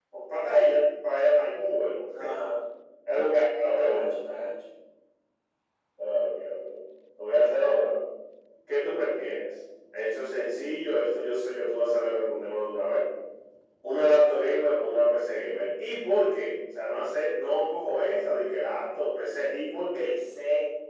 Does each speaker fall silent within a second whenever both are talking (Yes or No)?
Yes